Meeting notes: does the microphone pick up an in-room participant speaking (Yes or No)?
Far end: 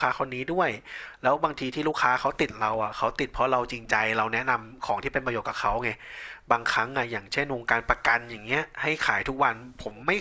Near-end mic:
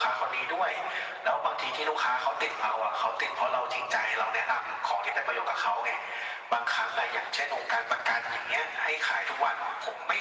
No